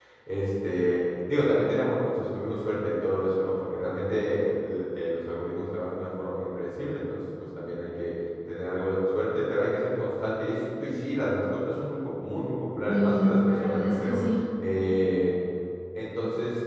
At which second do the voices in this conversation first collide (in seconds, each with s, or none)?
12.9 s